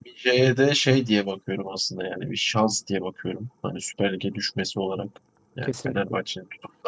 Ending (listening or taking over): listening